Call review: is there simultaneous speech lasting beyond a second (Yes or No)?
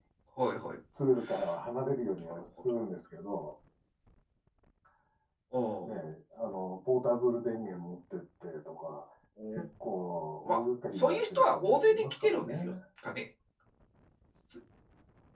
Yes